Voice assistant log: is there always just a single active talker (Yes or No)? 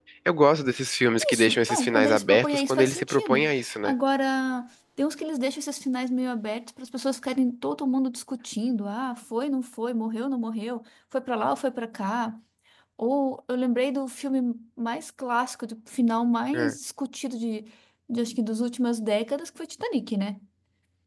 No